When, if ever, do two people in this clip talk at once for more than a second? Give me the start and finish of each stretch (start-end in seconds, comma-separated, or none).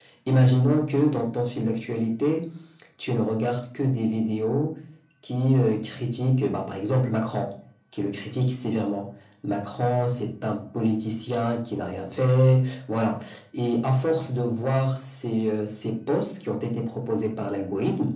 none